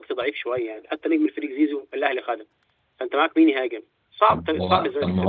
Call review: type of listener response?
taking over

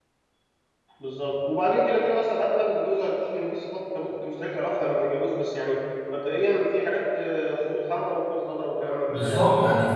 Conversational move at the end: taking over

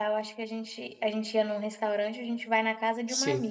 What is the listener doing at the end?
listening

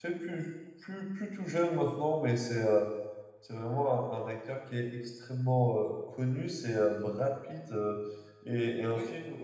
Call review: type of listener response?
listening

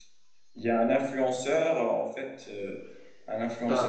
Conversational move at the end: listening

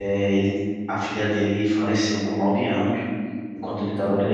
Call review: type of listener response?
listening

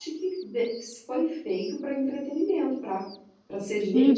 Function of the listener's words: taking over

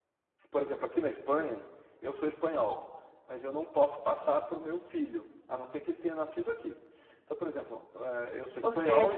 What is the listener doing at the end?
taking over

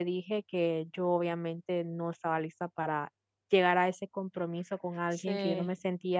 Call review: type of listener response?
listening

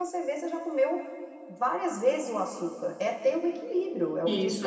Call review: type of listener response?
taking over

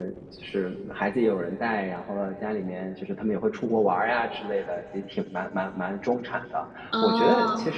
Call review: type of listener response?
listening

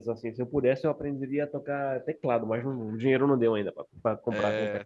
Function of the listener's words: taking over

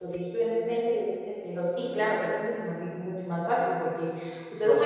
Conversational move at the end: listening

